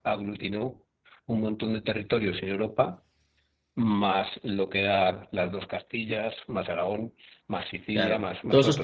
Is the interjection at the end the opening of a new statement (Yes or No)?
Yes